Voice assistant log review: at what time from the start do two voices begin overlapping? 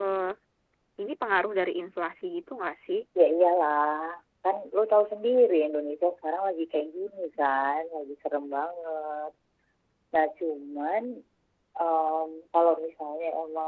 none

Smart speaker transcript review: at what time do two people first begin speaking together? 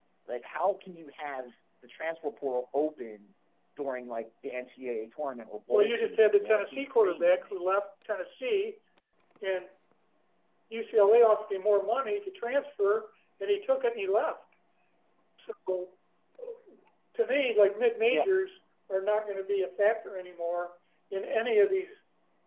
5.7 s

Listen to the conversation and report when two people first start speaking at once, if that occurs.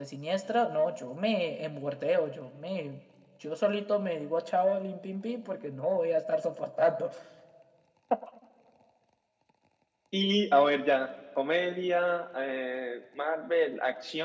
none

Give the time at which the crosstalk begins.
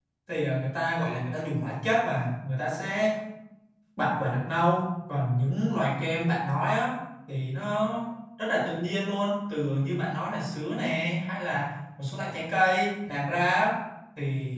none

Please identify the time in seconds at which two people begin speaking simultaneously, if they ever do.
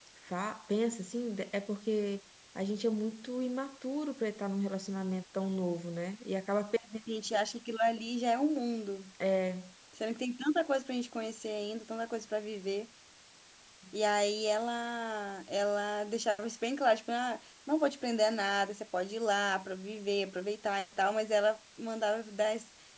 none

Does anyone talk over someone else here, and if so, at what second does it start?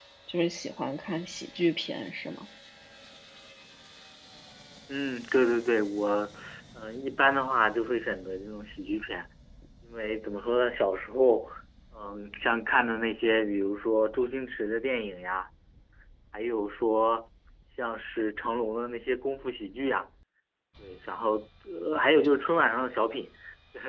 none

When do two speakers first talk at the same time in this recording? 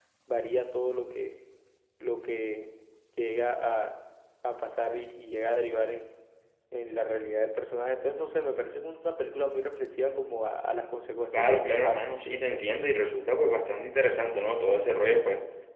11.3 s

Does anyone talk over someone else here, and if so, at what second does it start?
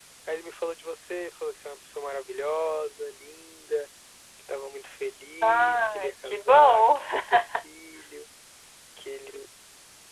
5.4 s

